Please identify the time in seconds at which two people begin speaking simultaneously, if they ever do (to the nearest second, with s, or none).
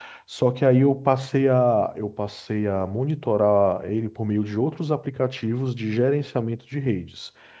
none